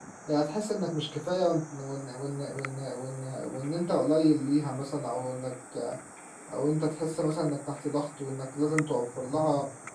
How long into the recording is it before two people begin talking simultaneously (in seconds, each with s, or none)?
none